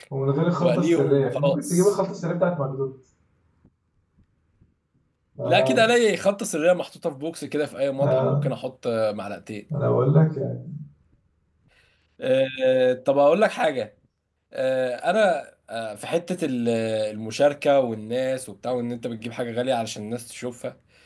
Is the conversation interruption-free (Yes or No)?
No